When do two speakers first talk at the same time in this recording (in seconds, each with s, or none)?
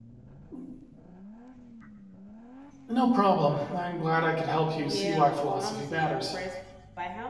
4.8 s